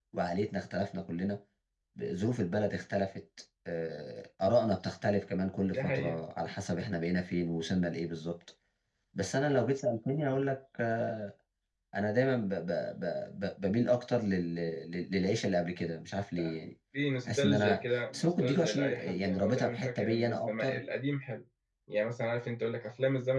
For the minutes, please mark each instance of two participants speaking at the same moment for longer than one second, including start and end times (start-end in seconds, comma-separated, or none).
17.2-20.8